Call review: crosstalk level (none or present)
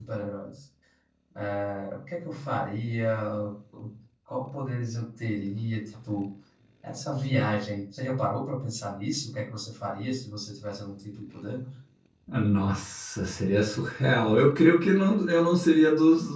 none